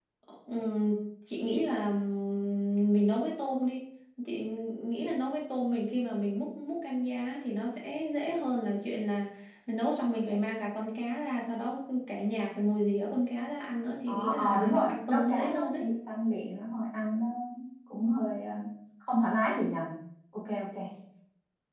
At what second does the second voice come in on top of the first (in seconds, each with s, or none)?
14.1 s